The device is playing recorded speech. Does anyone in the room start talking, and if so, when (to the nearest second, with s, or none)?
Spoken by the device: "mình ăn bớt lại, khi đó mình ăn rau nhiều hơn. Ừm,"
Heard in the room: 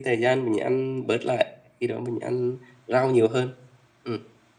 none